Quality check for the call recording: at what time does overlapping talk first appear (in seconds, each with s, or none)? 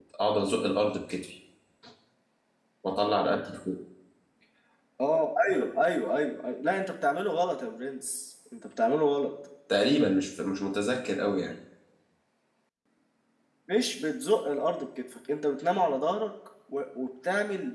none